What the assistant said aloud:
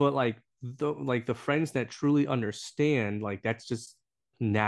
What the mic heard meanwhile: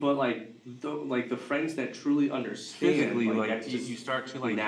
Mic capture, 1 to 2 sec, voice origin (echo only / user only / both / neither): echo only